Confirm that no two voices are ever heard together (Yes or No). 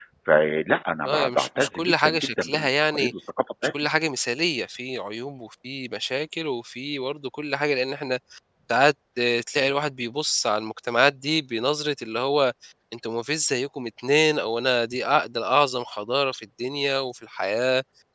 No